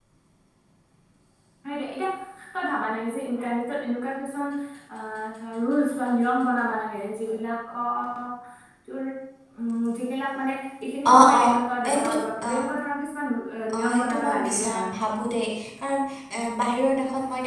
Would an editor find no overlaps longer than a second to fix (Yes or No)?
No